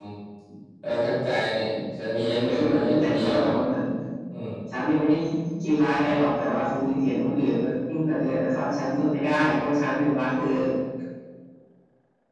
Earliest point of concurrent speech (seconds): 2.2 s

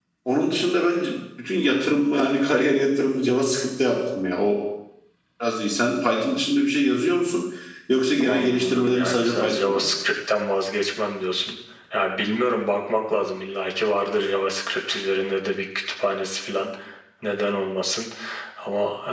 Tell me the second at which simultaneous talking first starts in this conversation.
8.2 s

